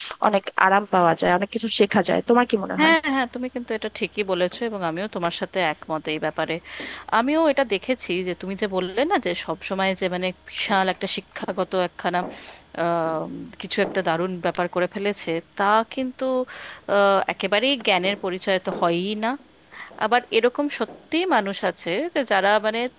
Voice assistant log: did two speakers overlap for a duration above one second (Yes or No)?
No